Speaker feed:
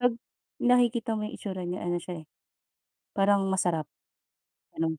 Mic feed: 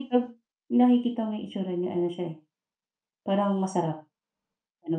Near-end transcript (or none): none